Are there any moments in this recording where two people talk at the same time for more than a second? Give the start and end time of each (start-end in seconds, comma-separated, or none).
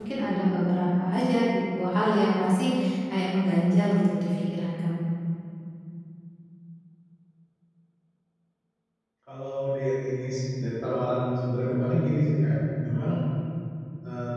none